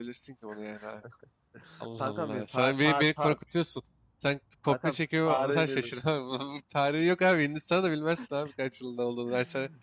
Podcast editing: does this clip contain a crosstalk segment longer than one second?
Yes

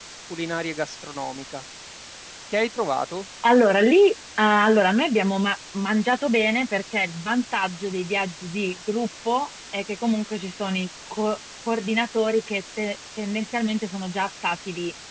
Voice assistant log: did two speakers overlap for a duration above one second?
No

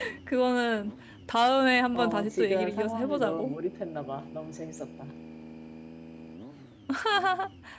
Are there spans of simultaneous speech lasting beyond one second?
Yes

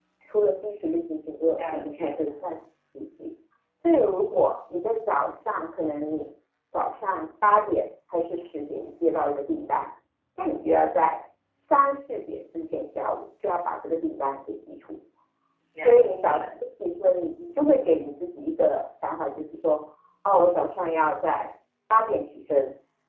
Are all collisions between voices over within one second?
No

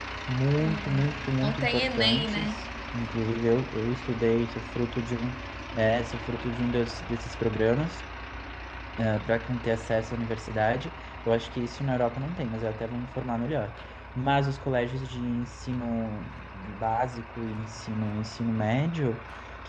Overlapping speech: Yes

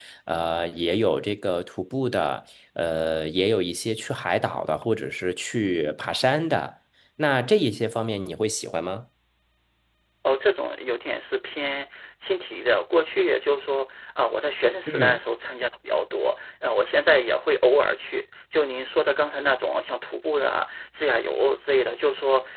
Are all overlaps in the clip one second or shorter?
Yes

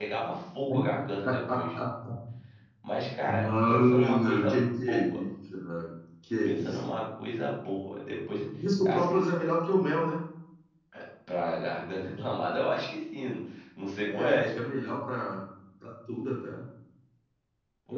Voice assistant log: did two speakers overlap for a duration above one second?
Yes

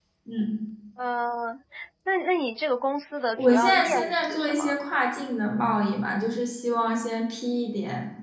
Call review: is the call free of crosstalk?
No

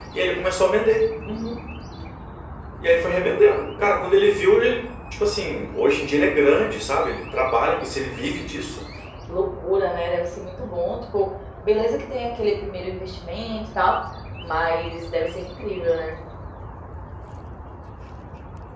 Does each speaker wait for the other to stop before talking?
Yes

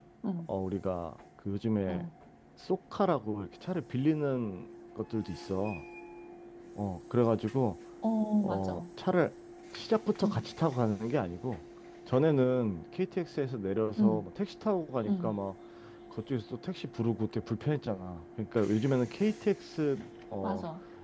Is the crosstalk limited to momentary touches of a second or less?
Yes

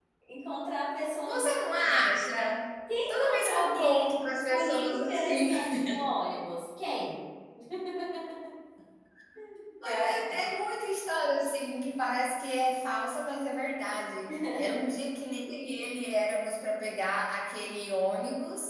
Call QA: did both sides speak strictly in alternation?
No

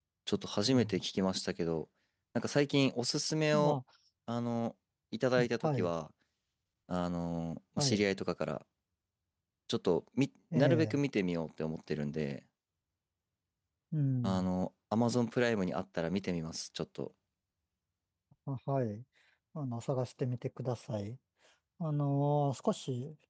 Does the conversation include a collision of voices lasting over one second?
No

